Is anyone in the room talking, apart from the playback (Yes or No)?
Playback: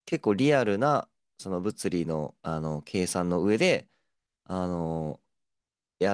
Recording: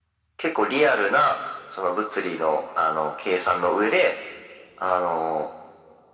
No